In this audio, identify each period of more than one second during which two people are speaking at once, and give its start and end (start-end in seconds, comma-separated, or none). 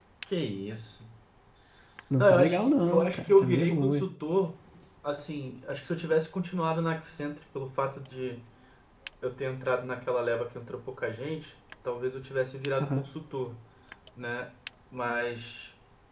2.2-4.0